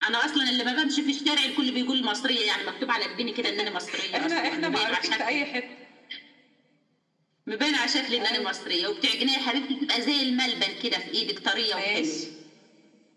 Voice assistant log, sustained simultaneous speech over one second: present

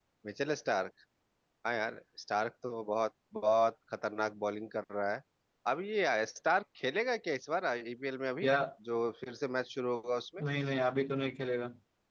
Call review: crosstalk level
none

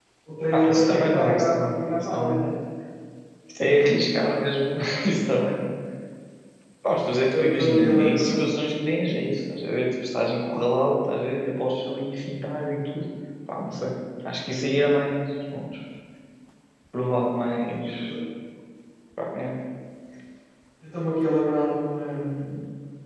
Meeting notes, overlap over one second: present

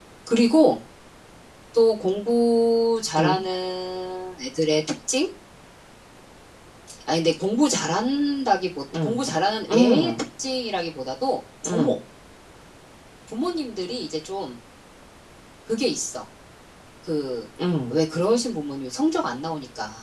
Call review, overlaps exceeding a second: none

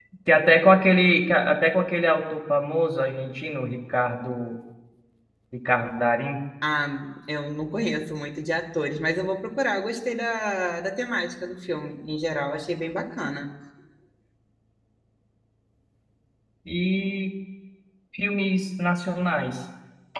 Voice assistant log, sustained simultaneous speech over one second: none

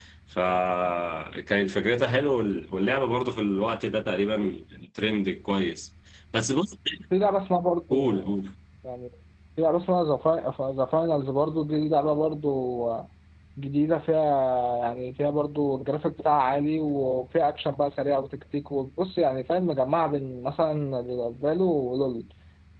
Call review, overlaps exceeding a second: none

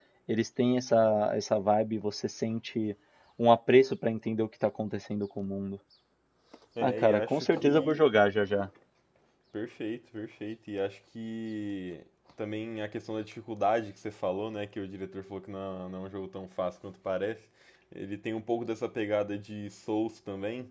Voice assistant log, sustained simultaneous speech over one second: present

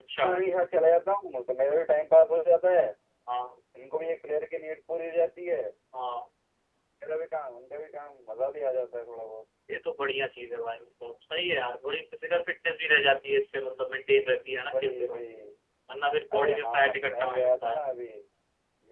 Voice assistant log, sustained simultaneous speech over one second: present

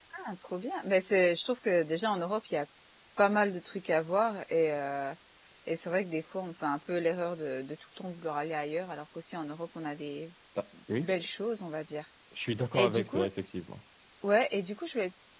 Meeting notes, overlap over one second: none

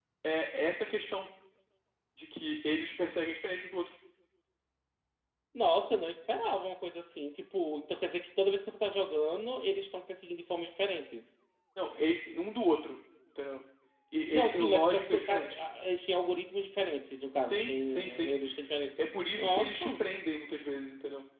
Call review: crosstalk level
present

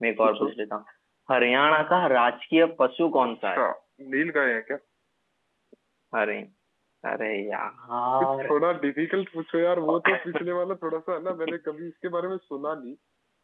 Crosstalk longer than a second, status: none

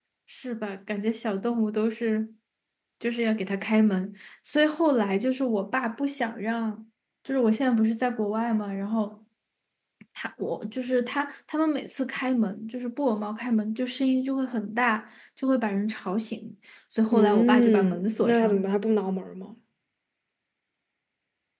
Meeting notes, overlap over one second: present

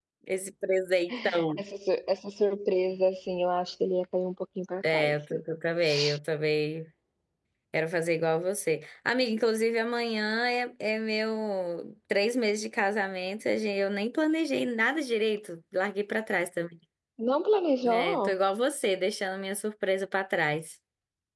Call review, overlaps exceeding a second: none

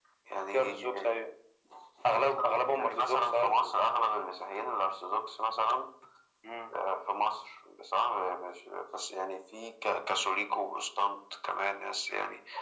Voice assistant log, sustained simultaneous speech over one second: present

